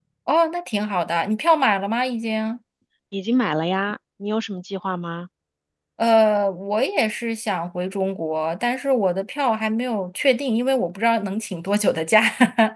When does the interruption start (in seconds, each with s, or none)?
none